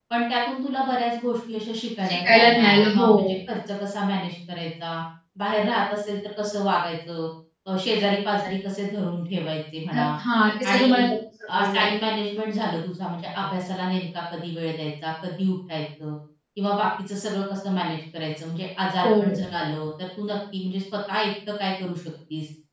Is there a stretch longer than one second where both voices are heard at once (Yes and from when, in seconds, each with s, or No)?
Yes, from 2.0 s